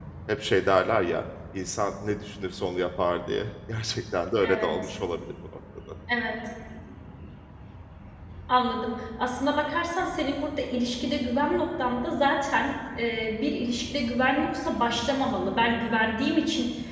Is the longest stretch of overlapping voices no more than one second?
Yes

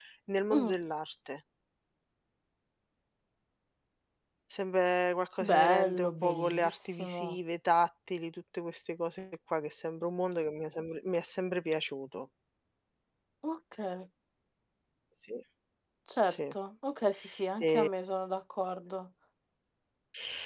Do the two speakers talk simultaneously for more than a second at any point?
Yes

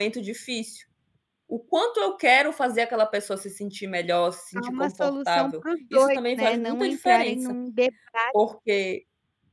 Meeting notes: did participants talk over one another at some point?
Yes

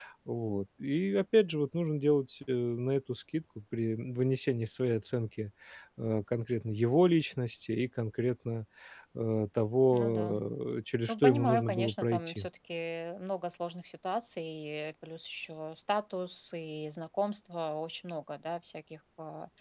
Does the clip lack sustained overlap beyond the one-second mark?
No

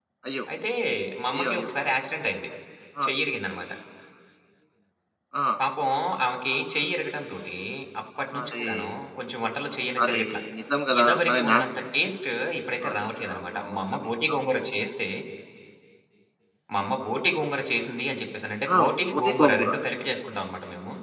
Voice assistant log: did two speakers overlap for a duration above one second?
Yes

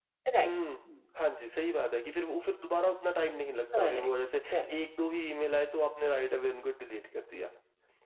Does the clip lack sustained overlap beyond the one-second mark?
Yes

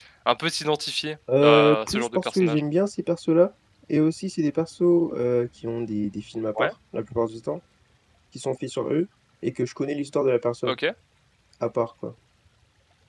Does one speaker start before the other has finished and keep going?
Yes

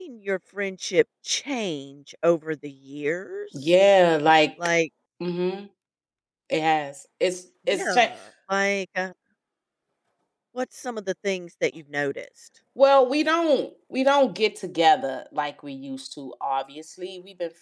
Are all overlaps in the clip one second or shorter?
Yes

